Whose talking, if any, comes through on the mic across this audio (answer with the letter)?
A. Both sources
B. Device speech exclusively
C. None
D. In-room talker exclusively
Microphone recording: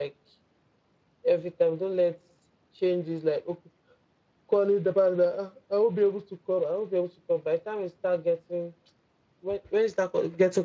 D